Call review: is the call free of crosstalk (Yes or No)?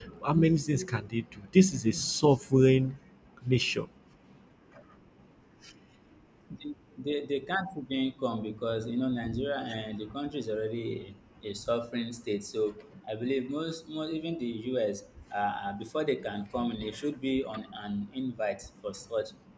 Yes